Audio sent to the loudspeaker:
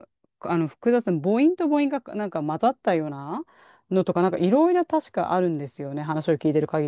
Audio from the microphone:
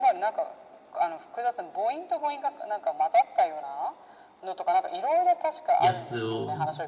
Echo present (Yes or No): Yes